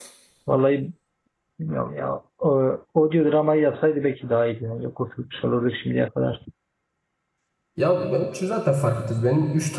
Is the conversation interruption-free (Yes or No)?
Yes